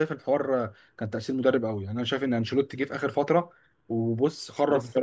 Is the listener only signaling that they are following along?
No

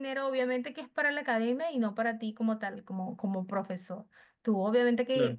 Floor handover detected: No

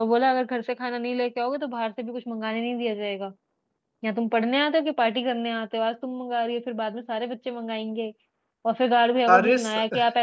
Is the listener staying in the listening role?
Yes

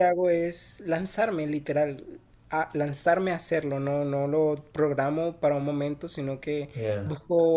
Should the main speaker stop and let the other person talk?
No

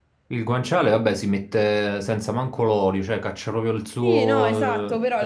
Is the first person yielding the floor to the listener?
Yes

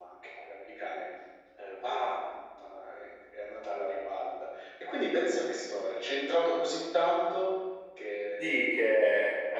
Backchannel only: No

